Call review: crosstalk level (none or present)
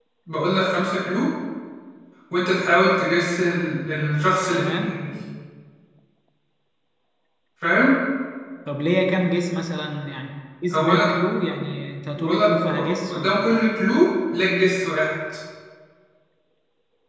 present